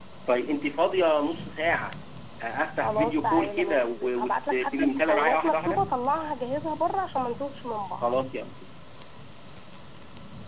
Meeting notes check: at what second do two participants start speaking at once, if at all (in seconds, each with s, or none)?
2.8 s